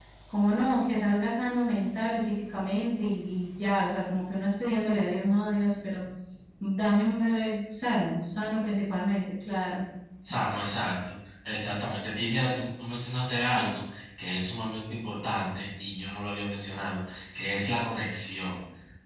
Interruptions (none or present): none